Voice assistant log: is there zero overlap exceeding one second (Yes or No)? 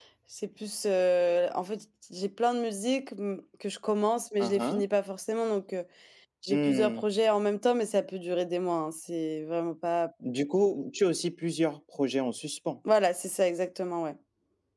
Yes